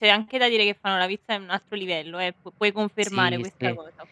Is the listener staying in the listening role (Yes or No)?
No